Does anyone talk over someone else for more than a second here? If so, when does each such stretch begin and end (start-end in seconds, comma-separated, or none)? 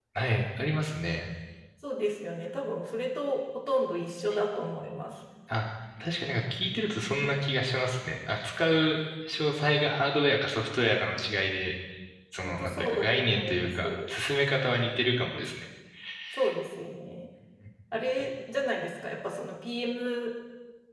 12.4-14.1